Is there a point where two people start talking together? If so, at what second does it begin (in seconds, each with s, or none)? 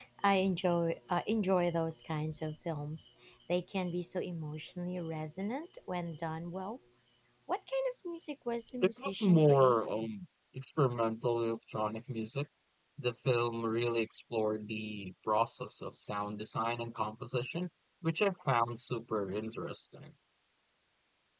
8.8 s